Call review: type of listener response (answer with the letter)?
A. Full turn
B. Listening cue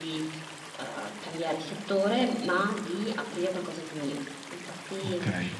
B